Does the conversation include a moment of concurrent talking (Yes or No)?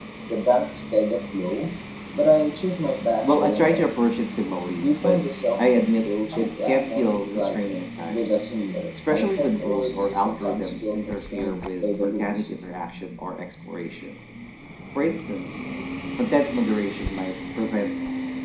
Yes